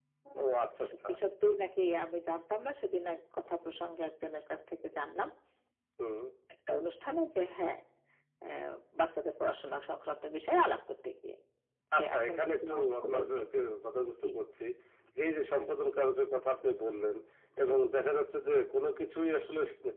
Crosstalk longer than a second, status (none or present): present